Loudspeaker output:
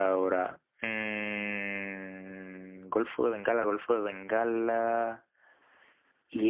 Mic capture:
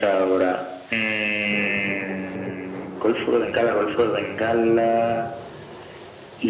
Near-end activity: none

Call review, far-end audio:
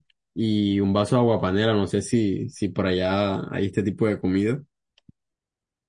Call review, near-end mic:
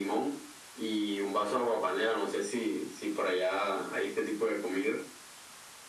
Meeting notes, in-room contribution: none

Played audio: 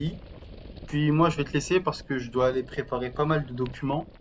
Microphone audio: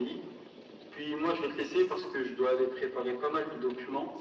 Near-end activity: none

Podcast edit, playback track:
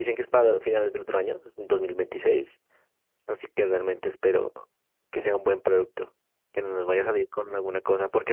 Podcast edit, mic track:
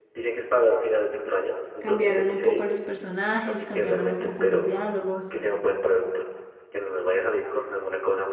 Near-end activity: present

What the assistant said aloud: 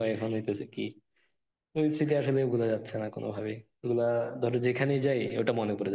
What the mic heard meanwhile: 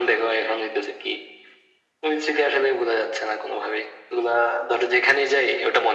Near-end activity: none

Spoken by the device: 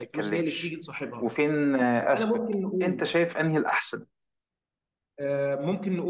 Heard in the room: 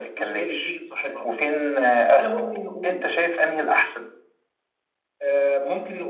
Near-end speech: none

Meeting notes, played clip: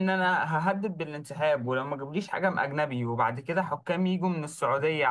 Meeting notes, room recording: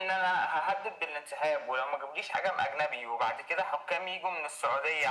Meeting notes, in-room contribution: none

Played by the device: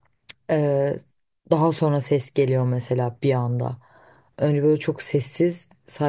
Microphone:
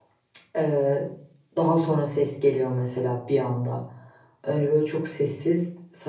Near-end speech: none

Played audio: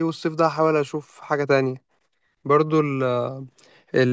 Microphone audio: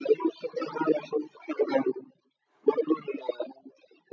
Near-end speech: none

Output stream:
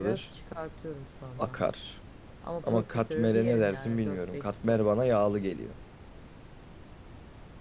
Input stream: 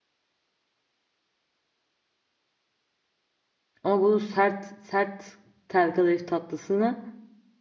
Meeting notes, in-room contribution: present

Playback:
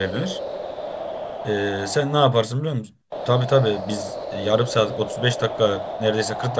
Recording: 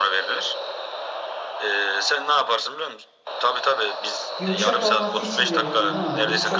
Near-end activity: present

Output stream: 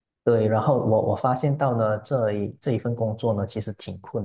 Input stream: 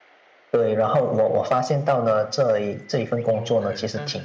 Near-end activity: present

